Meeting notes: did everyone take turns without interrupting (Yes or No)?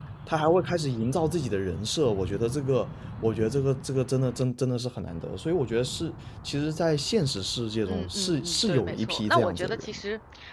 No